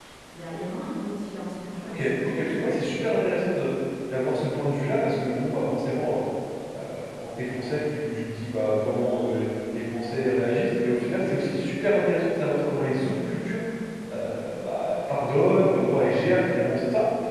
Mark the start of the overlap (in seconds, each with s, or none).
1.8 s